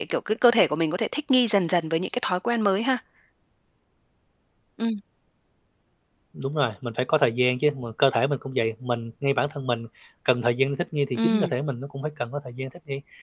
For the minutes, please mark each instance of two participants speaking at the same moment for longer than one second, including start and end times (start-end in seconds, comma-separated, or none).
none